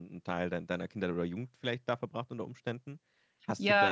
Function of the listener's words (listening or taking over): listening